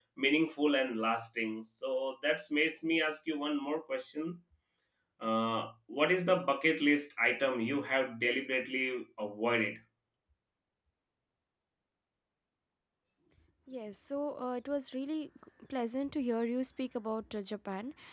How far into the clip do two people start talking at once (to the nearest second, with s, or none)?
none